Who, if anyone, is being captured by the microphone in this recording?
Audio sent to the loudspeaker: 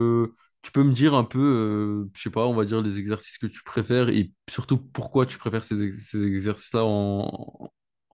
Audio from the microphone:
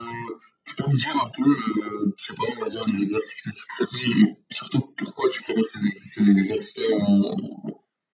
echo only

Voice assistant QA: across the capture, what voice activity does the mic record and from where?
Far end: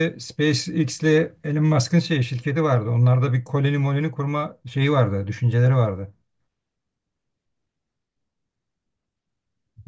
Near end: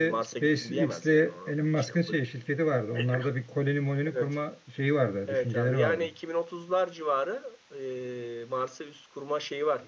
both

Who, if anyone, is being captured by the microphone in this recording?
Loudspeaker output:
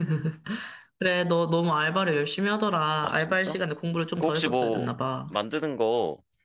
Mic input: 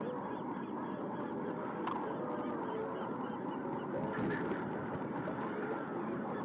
neither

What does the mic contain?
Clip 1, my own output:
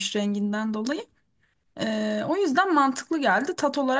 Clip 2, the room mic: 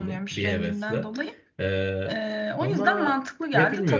both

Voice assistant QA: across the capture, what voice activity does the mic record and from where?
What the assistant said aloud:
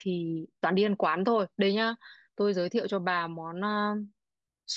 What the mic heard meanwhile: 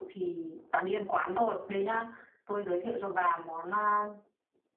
echo only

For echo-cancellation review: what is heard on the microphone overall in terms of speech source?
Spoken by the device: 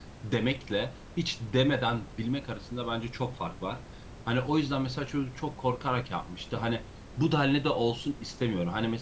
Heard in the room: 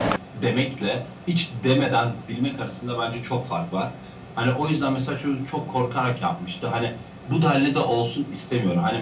echo only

